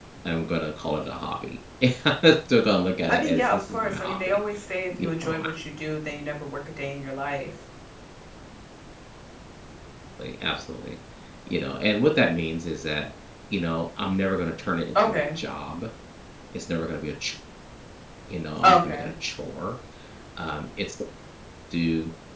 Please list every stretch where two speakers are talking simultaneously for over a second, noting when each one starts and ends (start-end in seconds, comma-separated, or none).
3.1-4.4